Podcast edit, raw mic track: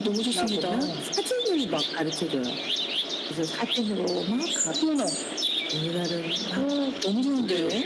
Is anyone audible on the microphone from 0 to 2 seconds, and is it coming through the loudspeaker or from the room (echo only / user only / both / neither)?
echo only